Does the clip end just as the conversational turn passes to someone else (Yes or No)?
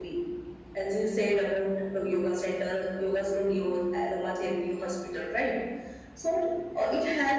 No